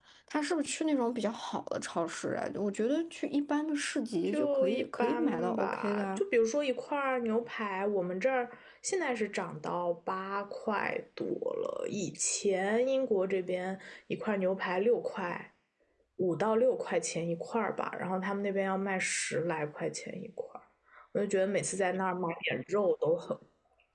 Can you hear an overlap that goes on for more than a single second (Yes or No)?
Yes